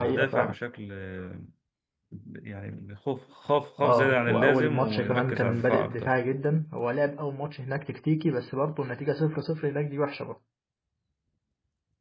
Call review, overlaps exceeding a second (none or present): present